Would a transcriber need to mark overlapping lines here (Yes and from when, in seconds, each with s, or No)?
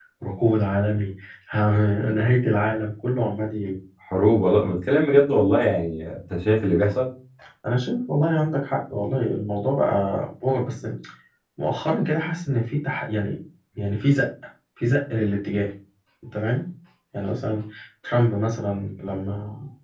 No